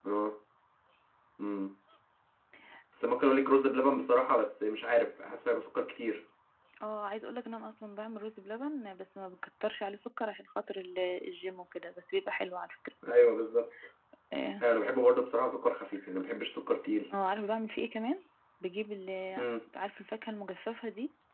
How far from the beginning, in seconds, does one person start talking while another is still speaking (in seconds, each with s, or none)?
none